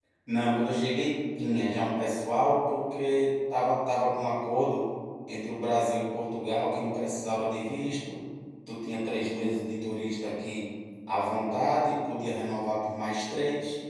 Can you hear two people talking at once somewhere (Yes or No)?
No